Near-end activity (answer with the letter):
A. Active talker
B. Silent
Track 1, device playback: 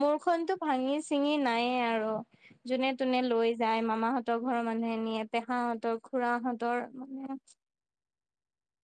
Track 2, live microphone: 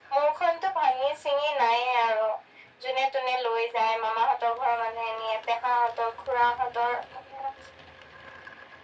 B